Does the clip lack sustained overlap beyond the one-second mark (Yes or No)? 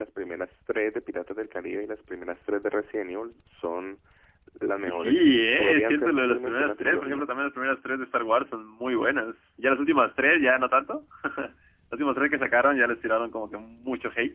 No